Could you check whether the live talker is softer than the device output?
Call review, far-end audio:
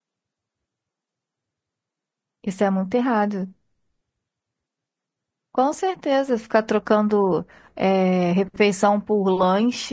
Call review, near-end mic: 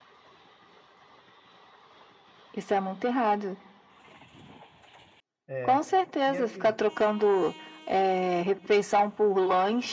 Yes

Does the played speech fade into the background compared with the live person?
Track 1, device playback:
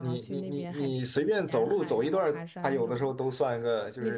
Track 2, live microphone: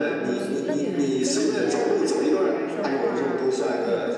No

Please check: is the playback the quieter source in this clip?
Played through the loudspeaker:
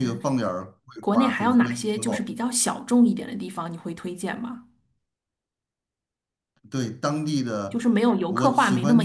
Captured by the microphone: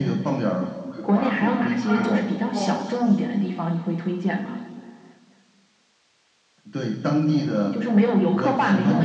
No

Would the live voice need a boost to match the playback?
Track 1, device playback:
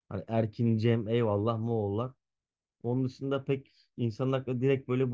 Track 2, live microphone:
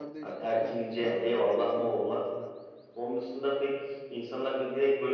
Yes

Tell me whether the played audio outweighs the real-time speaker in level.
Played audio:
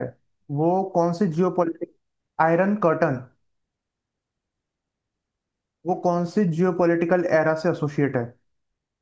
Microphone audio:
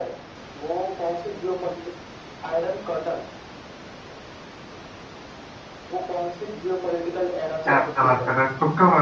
No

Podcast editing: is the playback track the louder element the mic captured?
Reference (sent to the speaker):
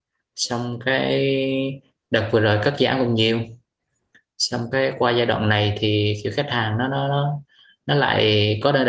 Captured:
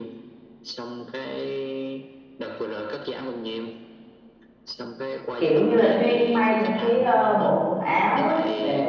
No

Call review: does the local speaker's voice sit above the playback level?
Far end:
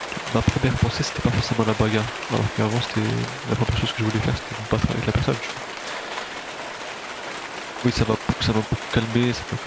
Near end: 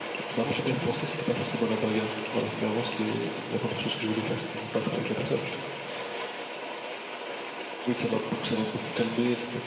No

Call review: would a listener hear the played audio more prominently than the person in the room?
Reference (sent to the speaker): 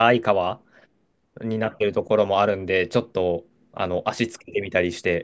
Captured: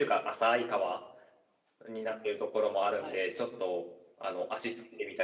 Yes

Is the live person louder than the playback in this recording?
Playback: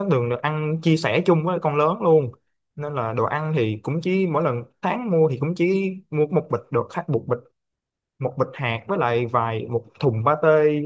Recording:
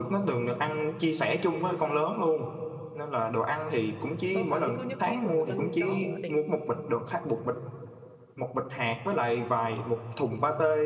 No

